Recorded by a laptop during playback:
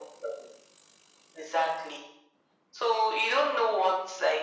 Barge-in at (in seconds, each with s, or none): none